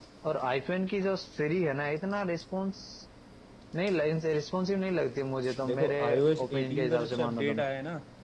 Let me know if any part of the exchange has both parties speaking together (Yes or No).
Yes